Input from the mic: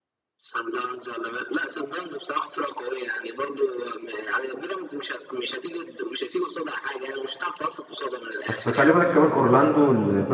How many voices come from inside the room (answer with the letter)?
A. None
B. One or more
B